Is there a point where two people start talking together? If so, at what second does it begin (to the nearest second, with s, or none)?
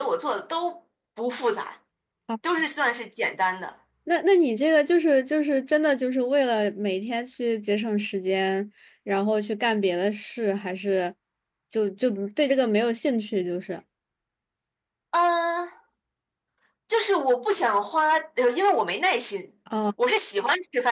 none